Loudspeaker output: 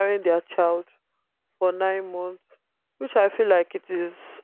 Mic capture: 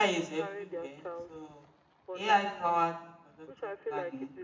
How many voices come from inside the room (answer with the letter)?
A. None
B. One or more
B